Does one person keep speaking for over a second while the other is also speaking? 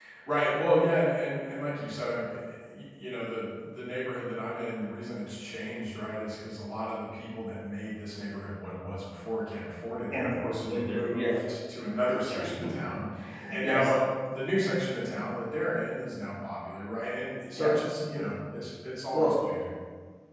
Yes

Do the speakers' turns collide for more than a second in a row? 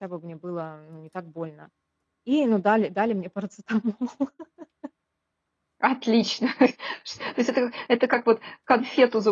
No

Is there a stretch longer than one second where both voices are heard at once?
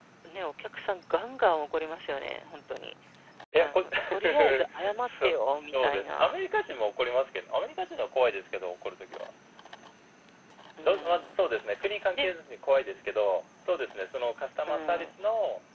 Yes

